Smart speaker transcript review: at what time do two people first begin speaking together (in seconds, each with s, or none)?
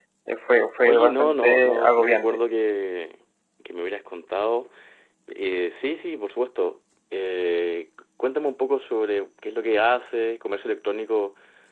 0.8 s